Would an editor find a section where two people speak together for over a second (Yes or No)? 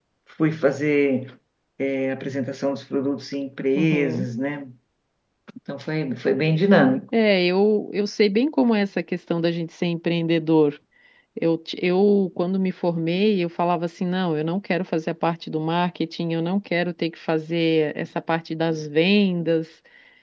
No